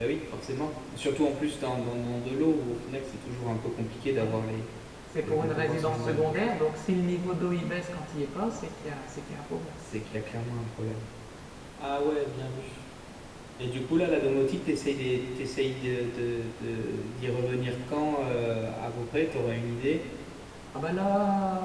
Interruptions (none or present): present